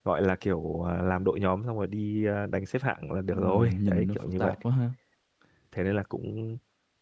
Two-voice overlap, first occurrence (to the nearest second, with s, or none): 3 s